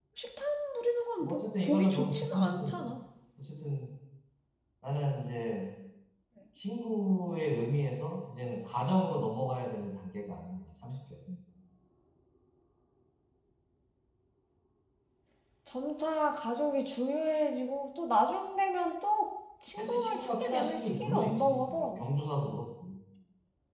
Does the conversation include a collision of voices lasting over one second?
Yes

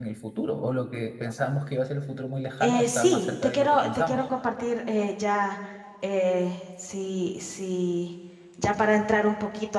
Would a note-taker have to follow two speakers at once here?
Yes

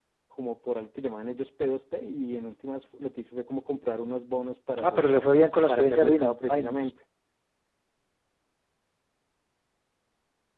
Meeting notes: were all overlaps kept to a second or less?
No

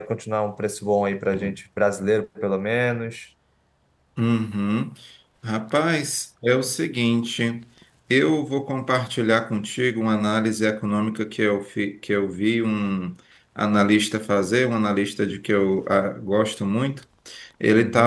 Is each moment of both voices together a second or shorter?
Yes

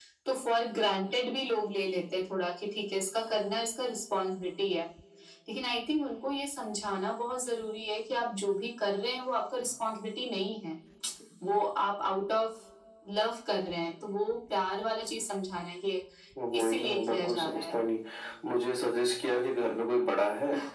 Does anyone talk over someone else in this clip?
Yes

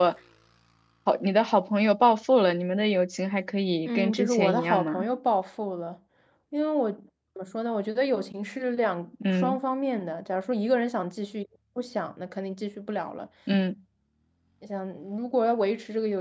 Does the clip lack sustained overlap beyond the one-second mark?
No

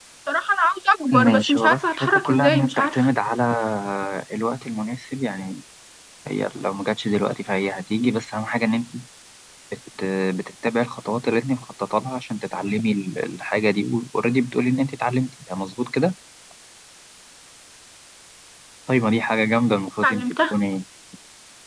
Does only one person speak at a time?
No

